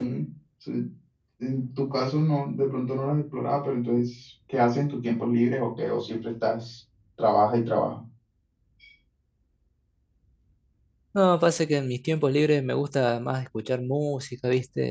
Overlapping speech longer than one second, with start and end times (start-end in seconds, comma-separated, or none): none